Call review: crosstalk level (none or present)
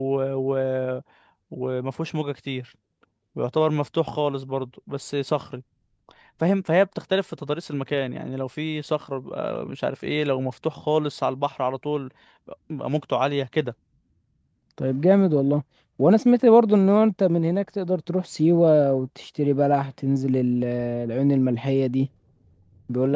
none